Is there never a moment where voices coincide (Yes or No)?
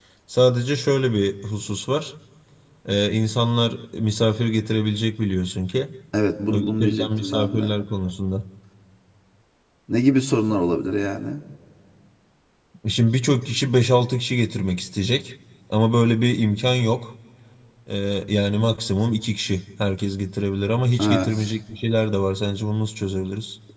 No